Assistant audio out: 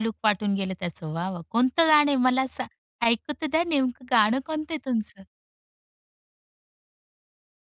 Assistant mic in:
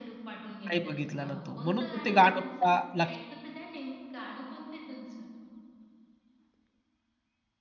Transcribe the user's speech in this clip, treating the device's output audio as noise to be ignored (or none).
नाही बघितला ना तो, म्हणून ते गाणं पा लक्ष